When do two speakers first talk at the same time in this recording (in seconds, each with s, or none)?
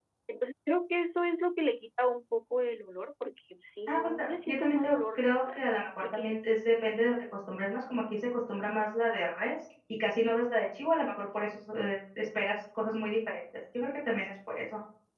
3.9 s